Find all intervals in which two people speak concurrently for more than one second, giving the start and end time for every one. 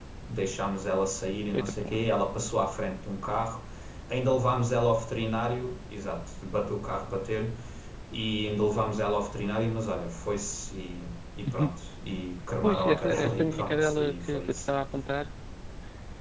12.6-14.7

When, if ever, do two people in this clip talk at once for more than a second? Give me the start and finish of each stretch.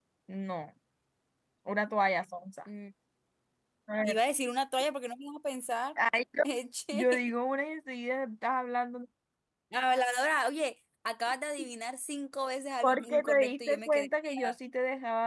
12.8-14.5

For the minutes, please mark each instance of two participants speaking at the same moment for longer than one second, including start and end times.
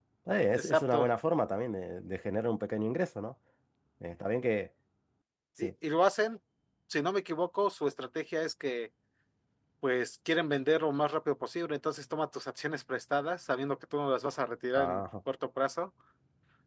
none

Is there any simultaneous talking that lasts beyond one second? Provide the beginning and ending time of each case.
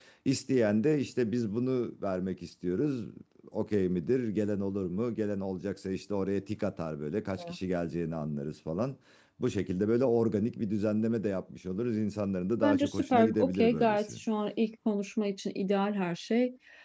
12.6-14.1

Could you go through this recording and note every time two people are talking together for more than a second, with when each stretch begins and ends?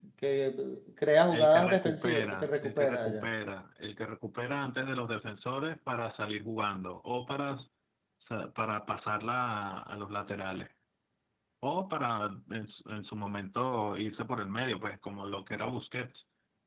1.3-3.3

